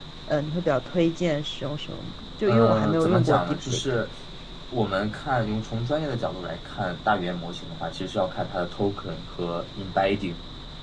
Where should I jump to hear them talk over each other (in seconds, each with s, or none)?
2.4 s